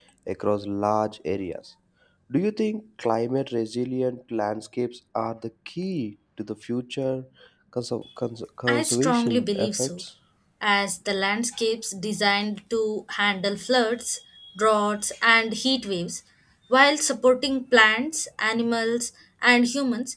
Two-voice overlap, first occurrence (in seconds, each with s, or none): 8.7 s